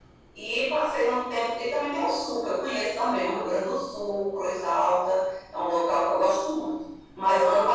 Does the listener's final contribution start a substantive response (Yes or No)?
No